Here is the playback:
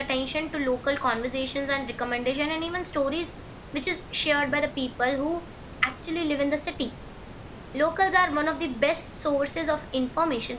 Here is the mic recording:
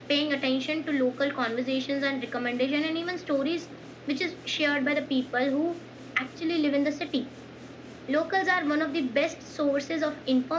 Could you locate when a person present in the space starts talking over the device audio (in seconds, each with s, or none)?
none